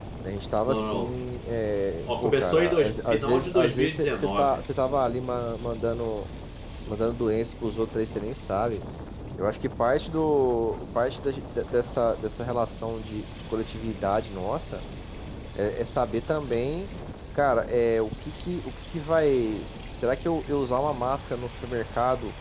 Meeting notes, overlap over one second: present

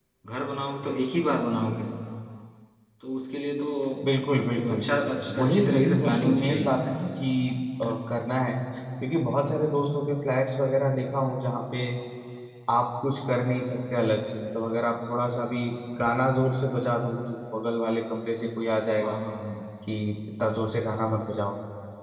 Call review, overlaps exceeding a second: present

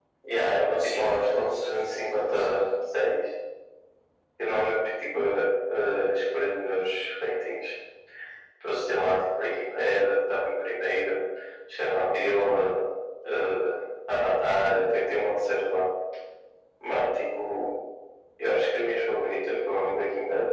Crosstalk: present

